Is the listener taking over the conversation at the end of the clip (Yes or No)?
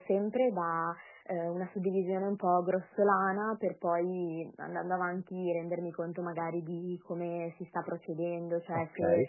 No